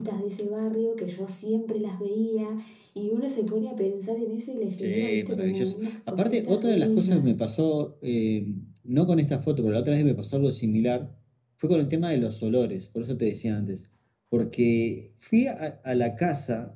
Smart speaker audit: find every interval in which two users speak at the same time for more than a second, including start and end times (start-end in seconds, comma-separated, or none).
4.8-7.3